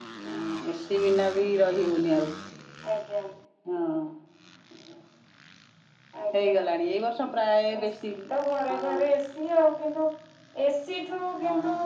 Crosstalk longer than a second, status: none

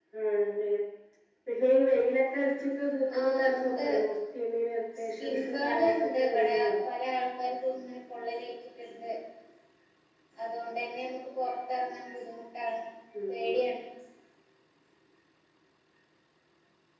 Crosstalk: present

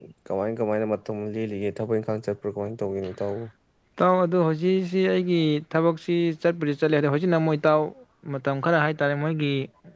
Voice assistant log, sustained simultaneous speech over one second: none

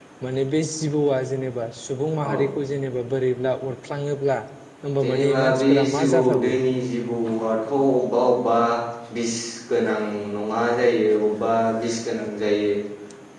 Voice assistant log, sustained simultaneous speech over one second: present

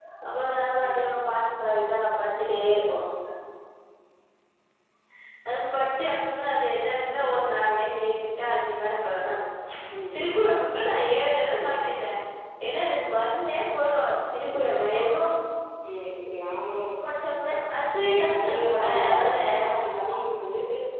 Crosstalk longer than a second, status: present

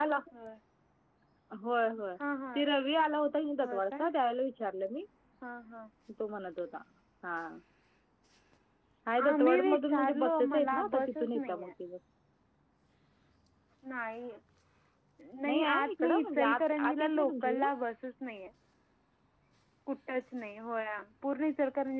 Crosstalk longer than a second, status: present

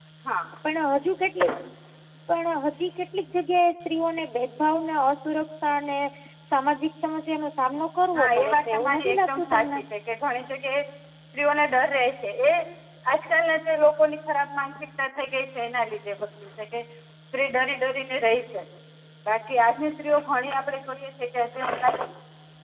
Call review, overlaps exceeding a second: present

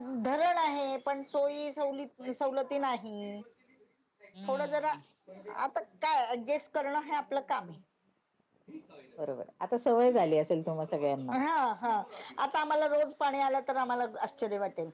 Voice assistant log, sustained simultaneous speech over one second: none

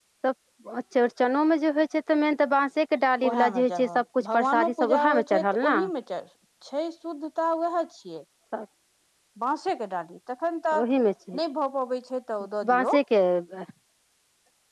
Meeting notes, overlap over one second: present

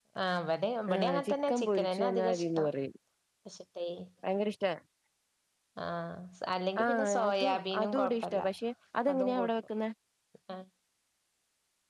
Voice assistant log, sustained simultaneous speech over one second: present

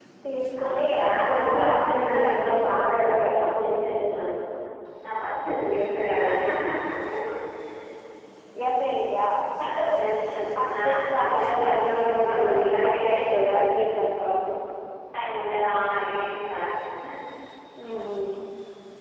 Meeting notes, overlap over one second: present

